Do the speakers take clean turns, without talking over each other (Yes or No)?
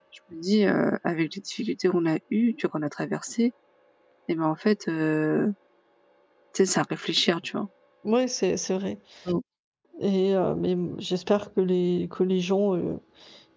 Yes